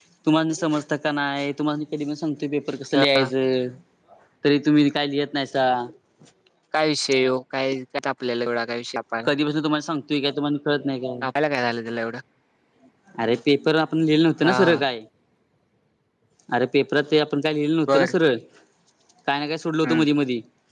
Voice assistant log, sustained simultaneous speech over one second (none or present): none